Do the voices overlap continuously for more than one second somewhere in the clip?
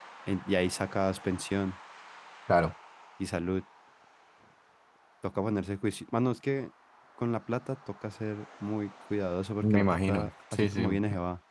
Yes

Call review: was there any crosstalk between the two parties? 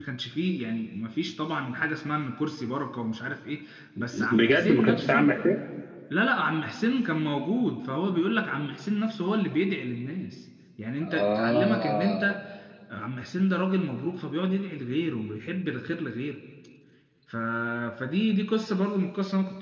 Yes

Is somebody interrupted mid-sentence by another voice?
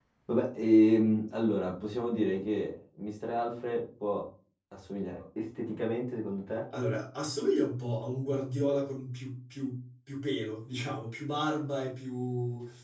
No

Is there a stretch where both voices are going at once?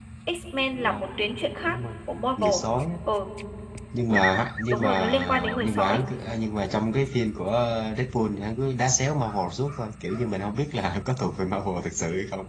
Yes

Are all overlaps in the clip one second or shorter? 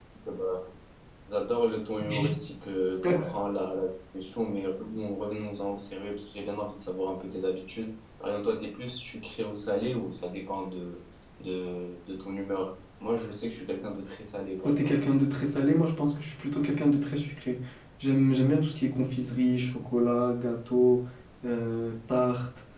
Yes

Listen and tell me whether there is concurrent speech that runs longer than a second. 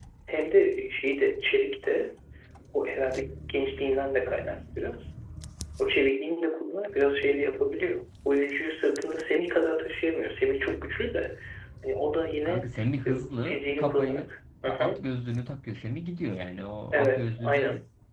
Yes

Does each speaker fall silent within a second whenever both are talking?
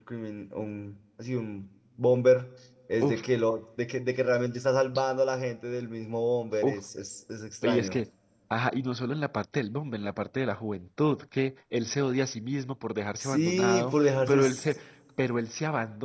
No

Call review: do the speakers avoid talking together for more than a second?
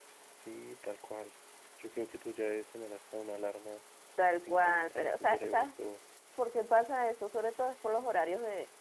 No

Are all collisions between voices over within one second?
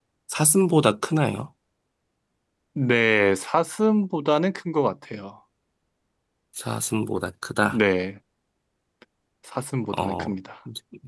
Yes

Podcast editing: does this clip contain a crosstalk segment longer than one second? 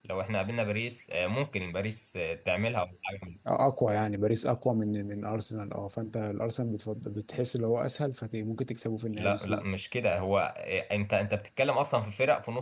No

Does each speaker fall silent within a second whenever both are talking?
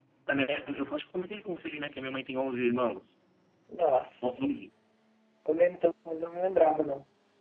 Yes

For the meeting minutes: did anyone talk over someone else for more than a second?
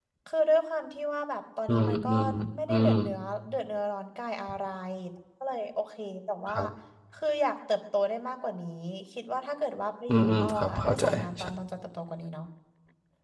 Yes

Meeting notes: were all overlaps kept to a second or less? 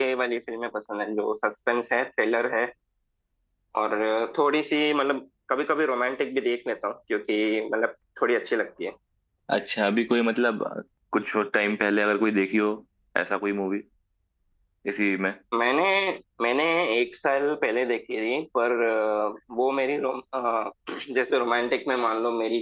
Yes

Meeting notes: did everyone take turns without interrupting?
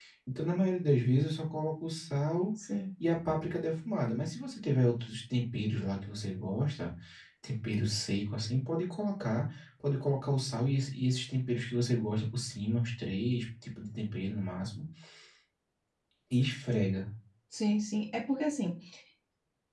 Yes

